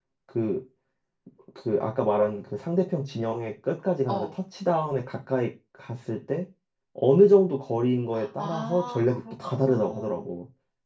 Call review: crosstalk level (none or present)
present